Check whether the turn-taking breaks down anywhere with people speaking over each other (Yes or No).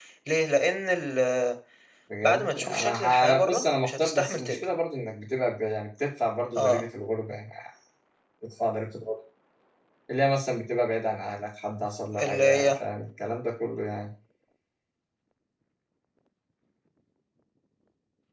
Yes